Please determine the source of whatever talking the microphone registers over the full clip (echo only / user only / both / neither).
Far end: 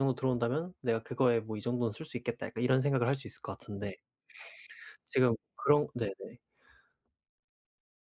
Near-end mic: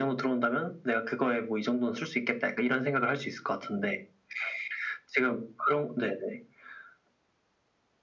echo only